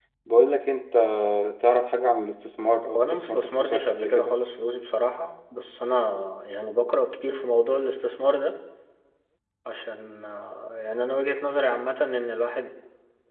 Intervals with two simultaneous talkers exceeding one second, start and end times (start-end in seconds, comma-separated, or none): 2.9-4.4